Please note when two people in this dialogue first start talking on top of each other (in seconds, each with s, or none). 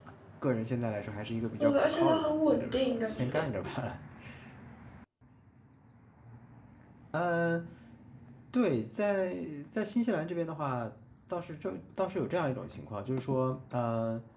1.6 s